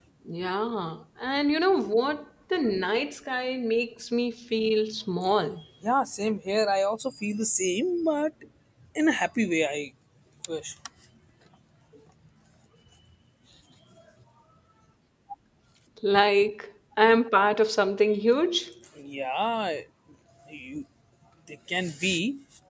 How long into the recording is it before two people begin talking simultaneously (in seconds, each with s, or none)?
none